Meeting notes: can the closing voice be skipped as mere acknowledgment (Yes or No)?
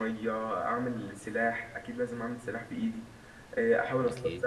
Yes